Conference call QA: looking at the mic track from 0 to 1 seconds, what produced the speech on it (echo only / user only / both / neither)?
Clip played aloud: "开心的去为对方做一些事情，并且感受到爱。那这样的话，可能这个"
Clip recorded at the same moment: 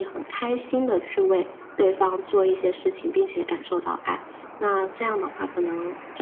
echo only